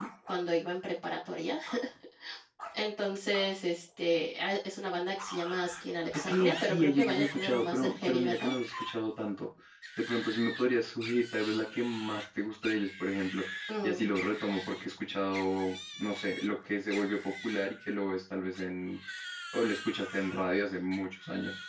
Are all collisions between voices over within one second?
No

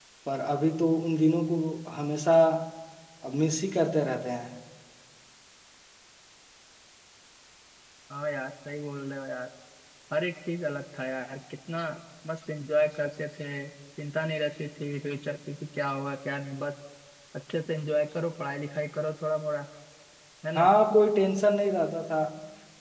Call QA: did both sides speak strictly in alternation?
Yes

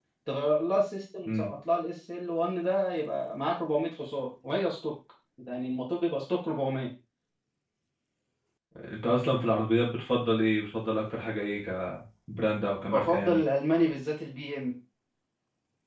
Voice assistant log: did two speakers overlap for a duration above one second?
No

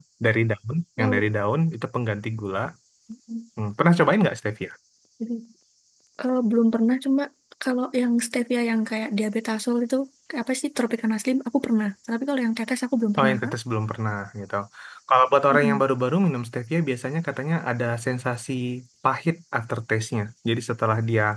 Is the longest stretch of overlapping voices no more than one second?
Yes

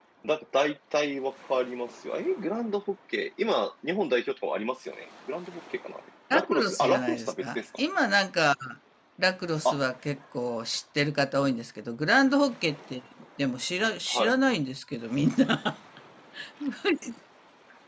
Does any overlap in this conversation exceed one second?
Yes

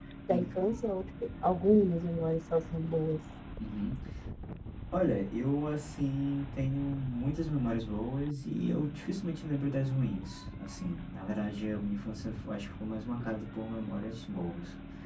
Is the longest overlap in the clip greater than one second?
No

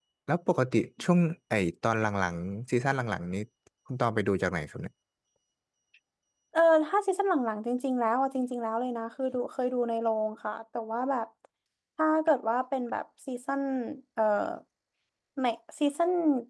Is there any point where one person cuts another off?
No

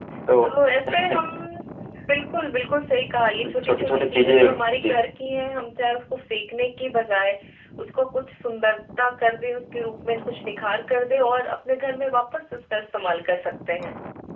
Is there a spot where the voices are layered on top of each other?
Yes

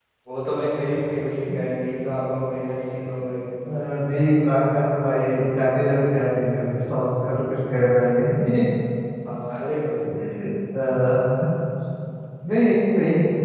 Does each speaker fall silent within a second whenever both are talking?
Yes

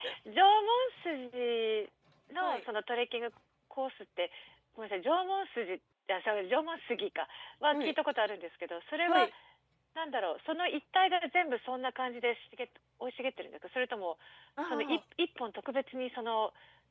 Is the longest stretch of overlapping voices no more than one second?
Yes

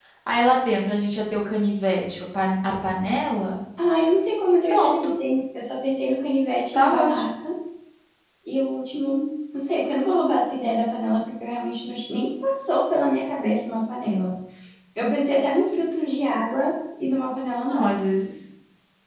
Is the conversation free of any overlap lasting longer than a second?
Yes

